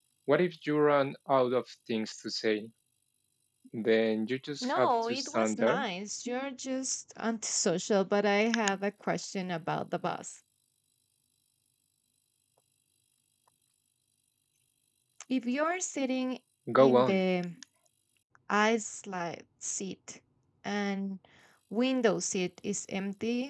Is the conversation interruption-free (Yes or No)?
No